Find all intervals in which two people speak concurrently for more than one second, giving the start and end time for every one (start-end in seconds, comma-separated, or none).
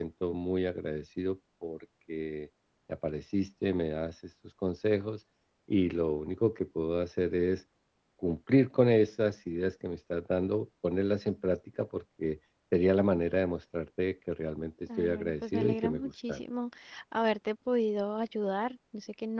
15.0-16.4